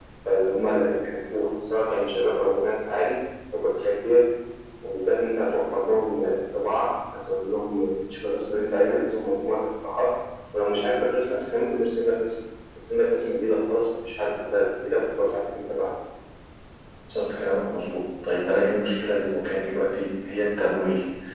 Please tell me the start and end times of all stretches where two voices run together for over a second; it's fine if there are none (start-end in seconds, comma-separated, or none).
none